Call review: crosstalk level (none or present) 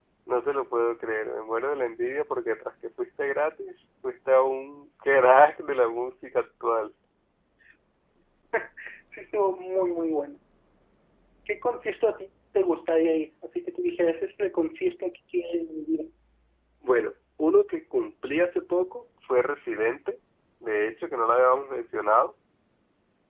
none